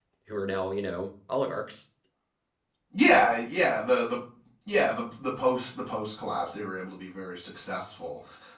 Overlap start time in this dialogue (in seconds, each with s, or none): none